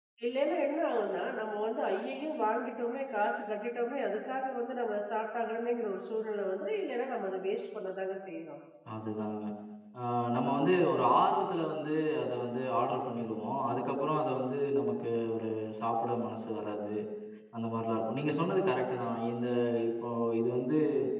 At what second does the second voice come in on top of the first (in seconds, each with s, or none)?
none